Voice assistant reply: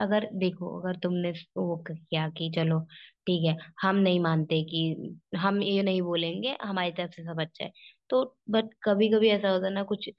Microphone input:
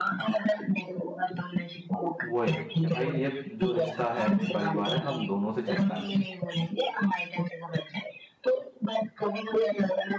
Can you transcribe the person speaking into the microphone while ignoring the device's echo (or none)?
वही कि भाई ये जो रिश्ता है ये परिवार है हम दोनों से चलता है